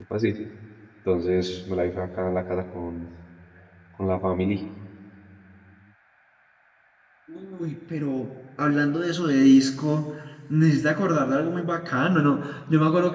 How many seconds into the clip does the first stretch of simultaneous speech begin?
none

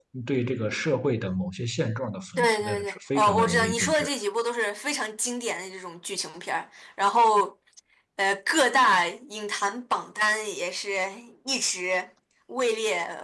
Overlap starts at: 2 s

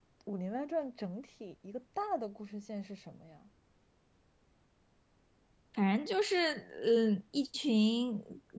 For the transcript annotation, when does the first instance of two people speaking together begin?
none

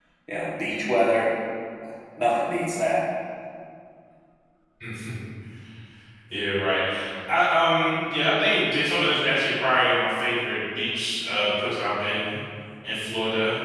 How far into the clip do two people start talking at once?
none

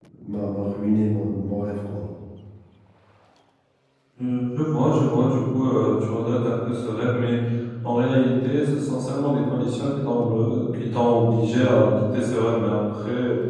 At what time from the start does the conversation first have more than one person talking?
none

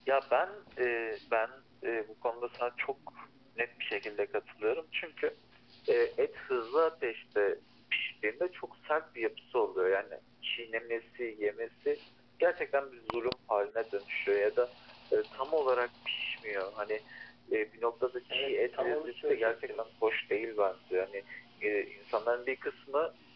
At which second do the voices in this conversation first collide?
18 s

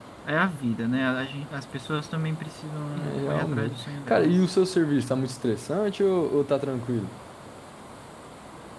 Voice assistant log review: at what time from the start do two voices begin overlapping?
3 s

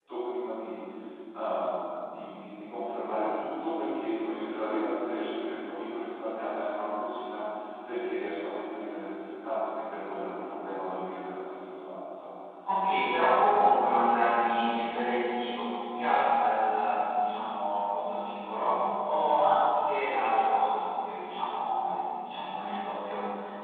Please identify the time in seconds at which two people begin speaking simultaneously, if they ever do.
none

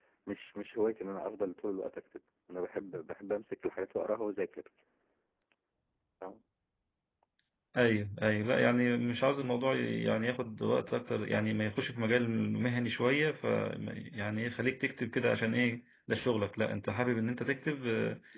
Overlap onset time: none

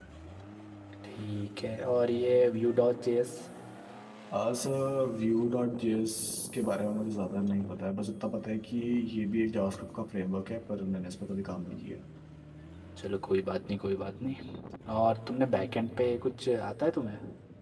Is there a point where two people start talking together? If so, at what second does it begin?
none

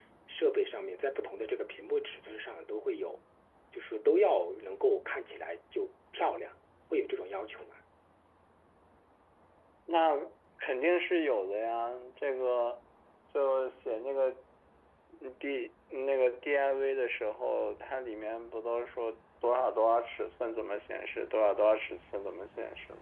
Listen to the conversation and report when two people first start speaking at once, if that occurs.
none

